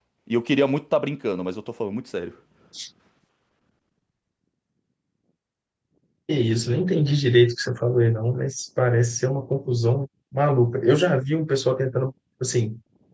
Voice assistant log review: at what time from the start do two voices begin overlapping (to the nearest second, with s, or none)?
none